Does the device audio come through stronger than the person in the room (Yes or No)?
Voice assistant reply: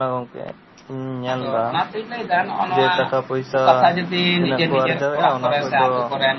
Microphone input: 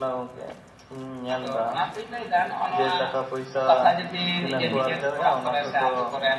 Yes